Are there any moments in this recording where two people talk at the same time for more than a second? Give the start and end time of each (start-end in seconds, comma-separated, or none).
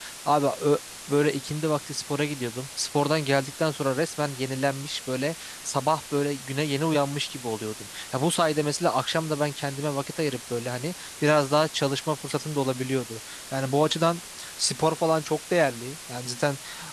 none